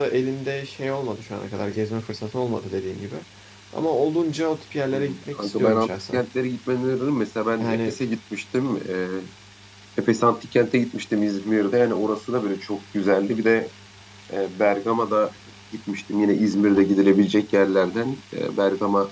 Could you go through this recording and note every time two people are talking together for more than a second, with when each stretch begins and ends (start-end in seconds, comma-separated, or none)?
4.9-6.2